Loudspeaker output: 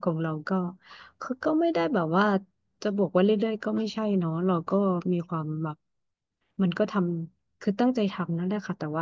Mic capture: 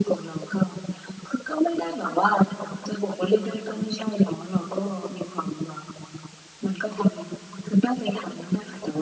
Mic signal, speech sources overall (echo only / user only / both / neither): echo only